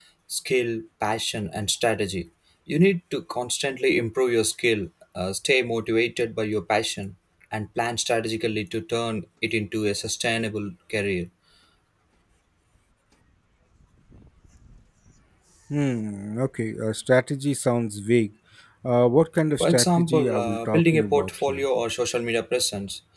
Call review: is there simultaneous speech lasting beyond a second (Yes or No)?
Yes